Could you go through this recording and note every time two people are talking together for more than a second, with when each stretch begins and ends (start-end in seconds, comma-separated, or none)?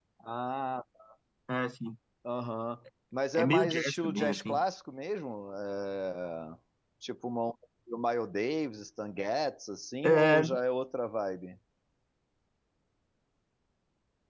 3.4-4.6